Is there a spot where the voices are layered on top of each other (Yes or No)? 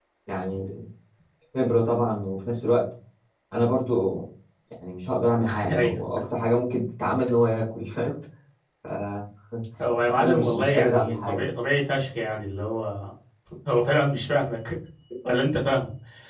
Yes